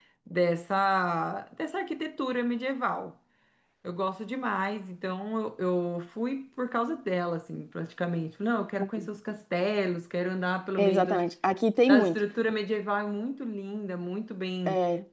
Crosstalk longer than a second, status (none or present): none